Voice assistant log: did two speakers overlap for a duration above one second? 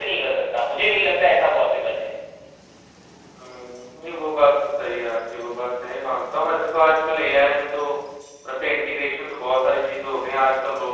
No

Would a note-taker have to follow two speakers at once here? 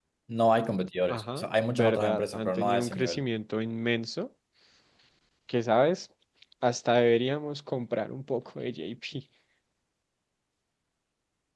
Yes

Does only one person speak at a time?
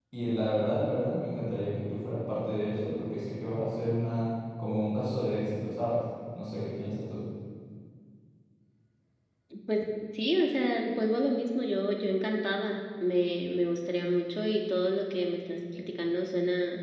Yes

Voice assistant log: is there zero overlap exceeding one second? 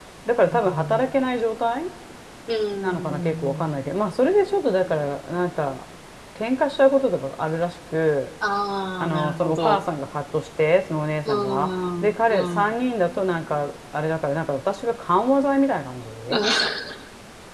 No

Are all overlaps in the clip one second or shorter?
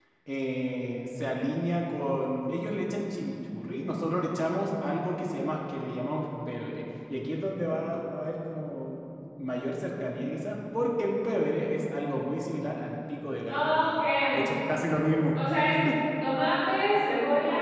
Yes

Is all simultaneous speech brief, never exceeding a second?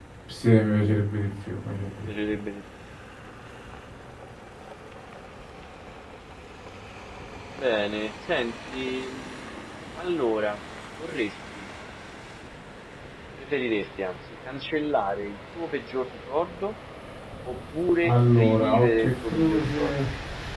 No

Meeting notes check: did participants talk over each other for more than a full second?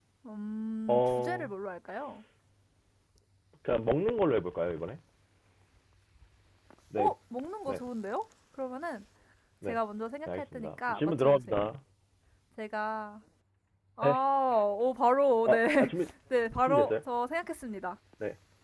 Yes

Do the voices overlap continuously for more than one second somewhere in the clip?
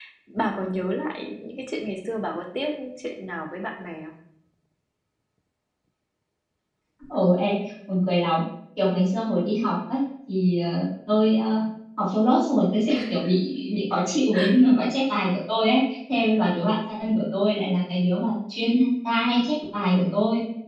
No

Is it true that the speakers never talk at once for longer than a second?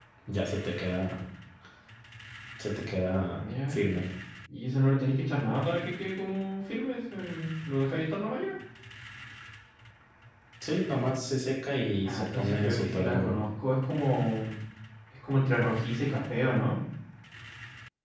No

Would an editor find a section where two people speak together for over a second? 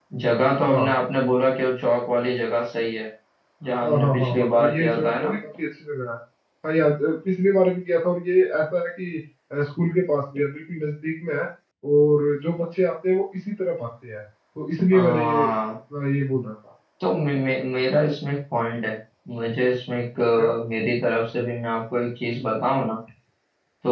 Yes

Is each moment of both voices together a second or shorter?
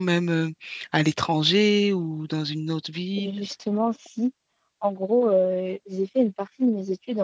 Yes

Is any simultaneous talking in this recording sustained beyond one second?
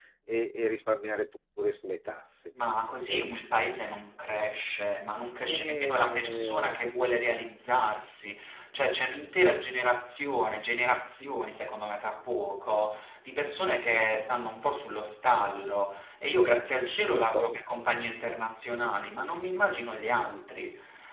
Yes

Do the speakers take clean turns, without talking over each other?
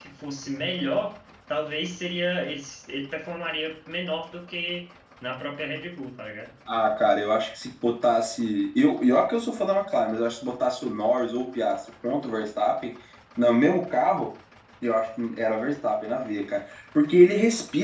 Yes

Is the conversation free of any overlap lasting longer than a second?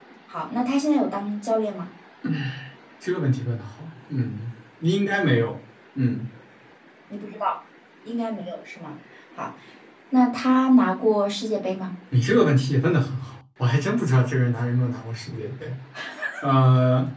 Yes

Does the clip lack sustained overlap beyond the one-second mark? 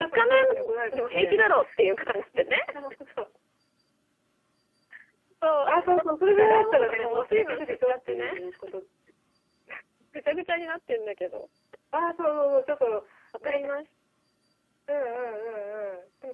No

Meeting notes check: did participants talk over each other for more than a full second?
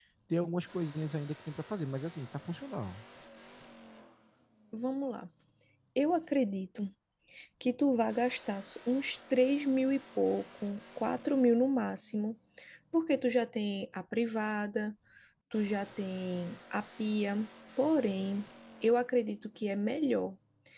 No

